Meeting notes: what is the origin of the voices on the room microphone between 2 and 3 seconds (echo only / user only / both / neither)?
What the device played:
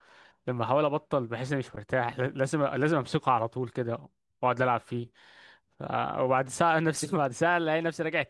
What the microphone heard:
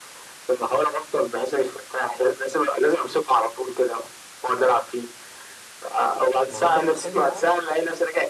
echo only